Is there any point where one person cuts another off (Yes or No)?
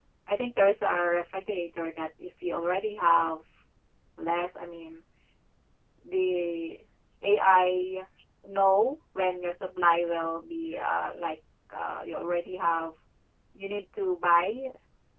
No